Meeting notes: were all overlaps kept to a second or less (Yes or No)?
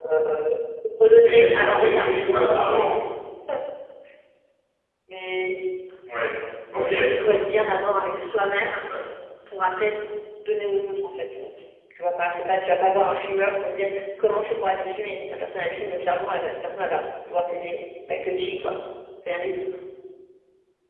No